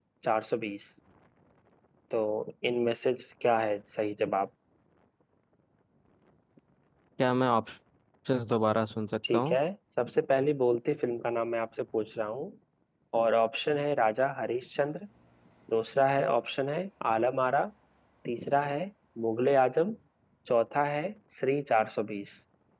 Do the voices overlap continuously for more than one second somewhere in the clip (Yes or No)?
No